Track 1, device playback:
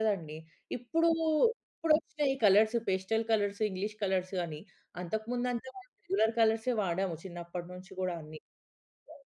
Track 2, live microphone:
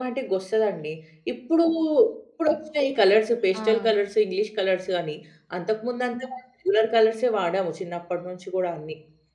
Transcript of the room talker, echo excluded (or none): ఆ!